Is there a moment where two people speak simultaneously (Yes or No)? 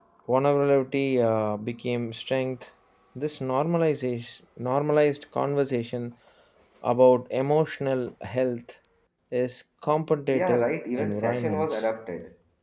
Yes